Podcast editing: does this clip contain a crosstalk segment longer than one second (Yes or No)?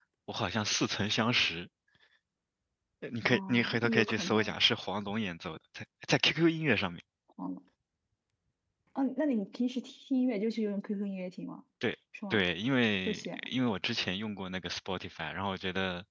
Yes